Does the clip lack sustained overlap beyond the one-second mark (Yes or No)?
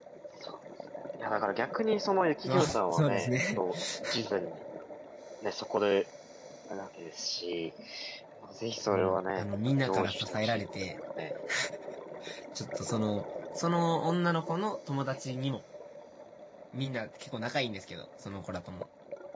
No